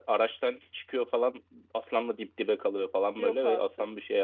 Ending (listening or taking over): listening